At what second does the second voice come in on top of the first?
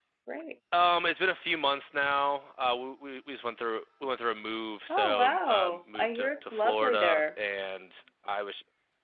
4.9 s

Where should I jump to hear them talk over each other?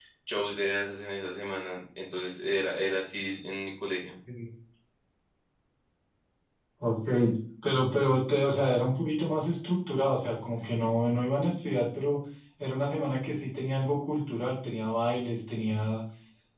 none

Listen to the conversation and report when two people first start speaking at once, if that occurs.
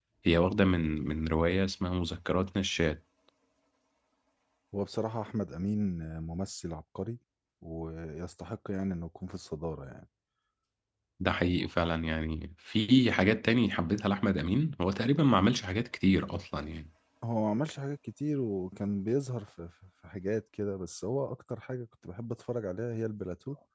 none

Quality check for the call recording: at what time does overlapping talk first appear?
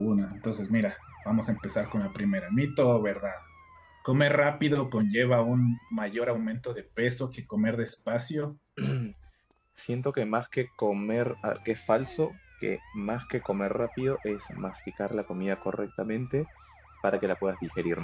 none

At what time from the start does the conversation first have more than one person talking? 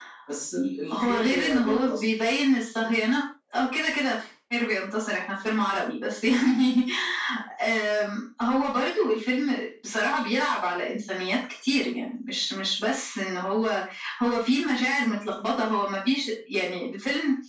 0.9 s

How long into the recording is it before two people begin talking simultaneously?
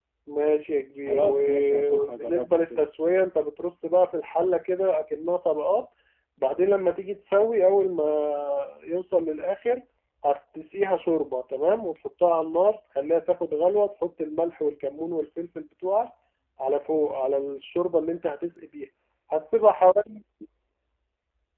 1.1 s

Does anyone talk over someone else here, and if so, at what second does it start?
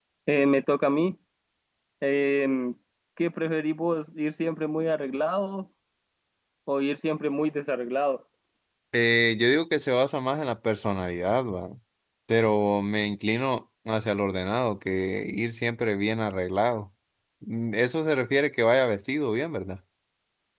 none

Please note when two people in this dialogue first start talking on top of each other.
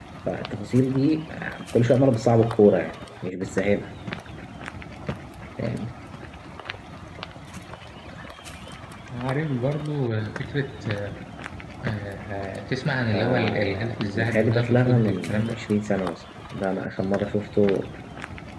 13.1 s

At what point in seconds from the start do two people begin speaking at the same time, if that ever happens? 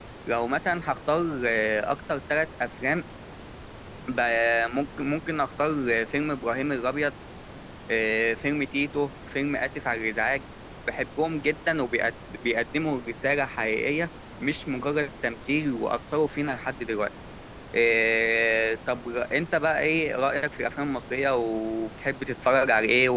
none

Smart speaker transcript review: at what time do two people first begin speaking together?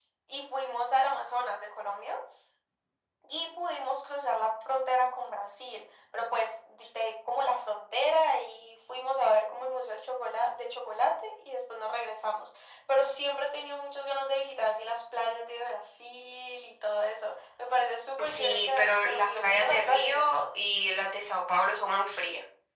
18.2 s

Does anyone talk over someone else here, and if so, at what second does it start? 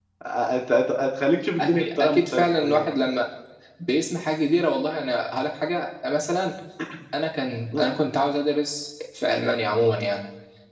1.6 s

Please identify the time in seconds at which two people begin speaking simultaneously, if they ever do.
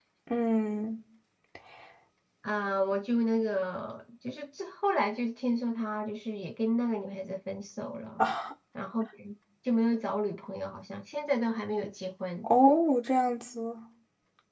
none

